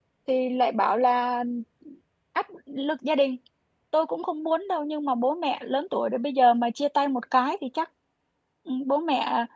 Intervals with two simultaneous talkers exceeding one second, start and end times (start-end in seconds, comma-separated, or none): none